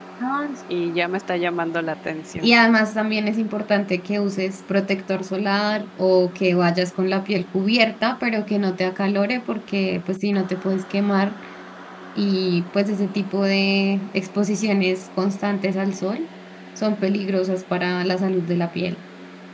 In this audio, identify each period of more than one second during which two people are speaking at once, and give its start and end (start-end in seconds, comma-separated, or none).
none